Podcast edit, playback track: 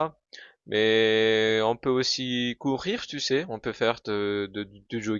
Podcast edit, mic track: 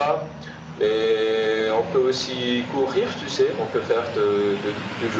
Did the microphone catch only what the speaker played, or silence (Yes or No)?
Yes